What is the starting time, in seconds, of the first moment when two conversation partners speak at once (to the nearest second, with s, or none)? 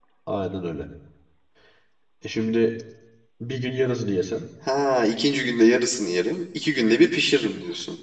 none